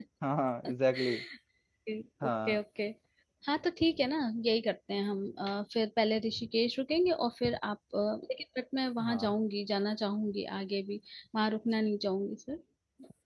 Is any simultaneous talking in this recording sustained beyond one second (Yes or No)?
No